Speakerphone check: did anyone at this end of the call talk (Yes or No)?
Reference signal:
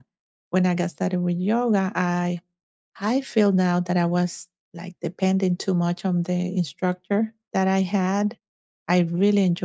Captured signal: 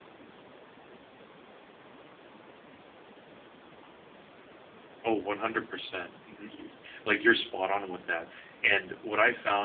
Yes